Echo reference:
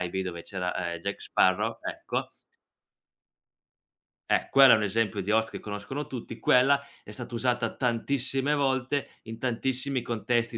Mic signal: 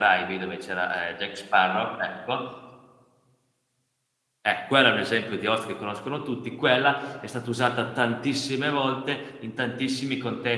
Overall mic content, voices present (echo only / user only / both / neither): echo only